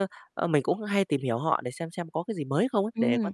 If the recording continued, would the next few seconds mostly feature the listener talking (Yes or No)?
Yes